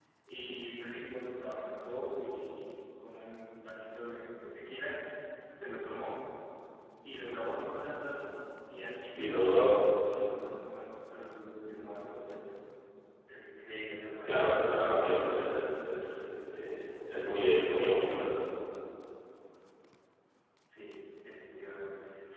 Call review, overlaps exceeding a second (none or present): none